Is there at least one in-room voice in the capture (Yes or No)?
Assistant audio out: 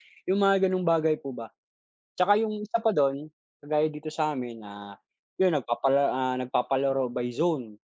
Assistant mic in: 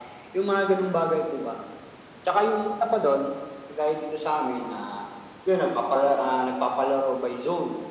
No